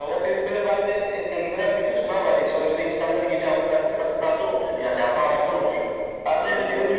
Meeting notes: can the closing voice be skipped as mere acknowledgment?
Yes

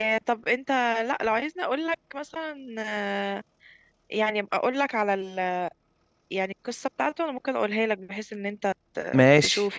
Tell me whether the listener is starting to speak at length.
Yes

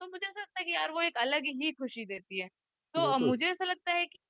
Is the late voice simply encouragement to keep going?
Yes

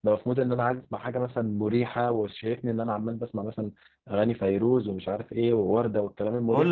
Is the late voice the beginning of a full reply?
Yes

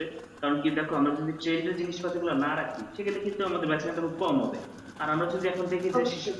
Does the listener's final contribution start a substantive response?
No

